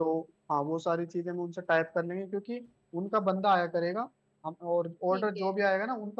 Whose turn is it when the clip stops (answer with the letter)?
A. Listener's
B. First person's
B